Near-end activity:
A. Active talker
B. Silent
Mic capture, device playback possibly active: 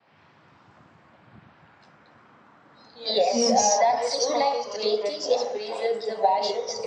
A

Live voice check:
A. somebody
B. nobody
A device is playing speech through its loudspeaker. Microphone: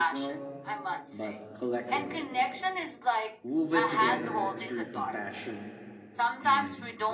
A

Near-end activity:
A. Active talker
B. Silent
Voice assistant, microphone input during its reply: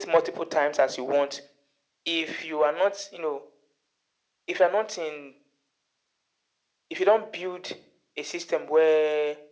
B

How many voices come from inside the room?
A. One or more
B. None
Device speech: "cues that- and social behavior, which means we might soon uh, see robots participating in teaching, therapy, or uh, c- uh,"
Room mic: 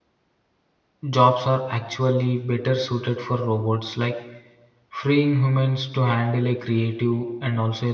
A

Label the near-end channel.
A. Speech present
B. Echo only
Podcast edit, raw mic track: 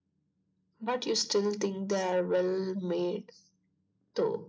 B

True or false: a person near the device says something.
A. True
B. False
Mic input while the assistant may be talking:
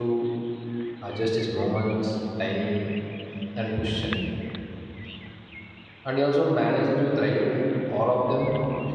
A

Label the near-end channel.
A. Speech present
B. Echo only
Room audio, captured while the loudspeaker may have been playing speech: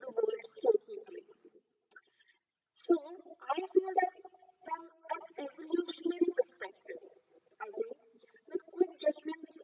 B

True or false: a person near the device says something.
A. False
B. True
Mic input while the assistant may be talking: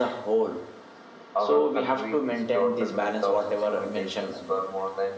A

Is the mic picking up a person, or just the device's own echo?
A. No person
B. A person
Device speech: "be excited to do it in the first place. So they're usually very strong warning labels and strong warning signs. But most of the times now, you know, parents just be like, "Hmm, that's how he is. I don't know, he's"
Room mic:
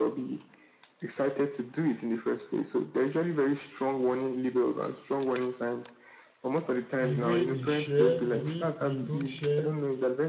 B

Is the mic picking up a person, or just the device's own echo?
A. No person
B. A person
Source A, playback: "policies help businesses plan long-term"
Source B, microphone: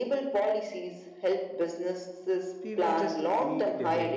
B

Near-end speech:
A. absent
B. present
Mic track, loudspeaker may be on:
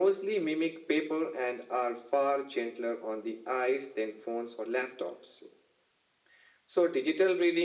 A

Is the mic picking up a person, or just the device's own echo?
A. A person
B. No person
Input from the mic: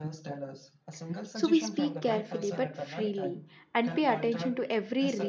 A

